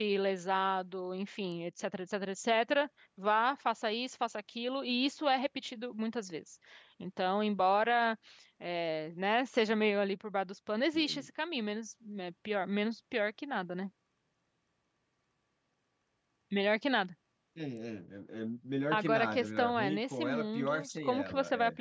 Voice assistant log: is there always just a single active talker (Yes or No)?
No